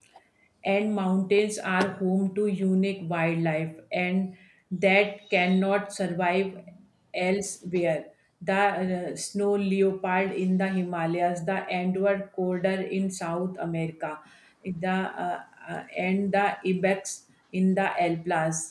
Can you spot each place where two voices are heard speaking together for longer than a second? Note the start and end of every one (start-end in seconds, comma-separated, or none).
none